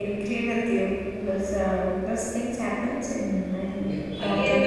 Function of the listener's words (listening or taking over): taking over